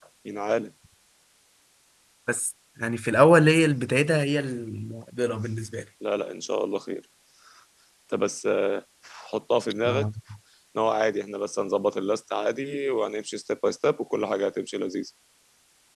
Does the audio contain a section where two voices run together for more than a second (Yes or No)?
No